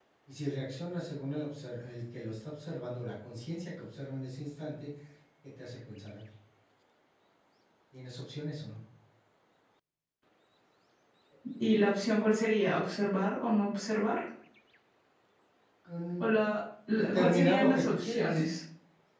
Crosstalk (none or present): present